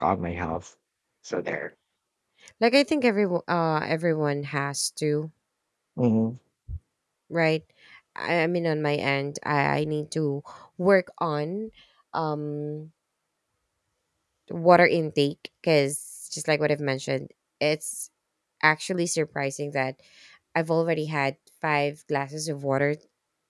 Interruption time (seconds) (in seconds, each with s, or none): none